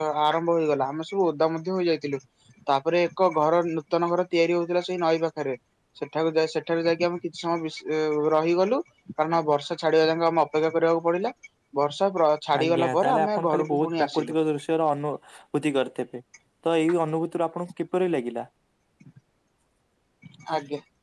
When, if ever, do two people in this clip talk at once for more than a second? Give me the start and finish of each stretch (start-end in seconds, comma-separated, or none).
12.6-14.3